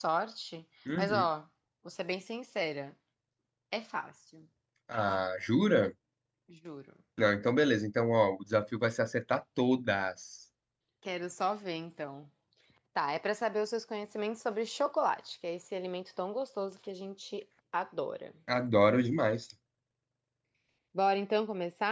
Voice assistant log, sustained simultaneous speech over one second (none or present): none